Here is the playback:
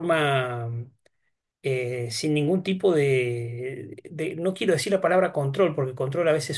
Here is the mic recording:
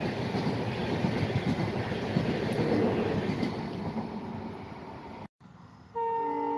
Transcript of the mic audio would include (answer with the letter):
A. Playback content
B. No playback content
B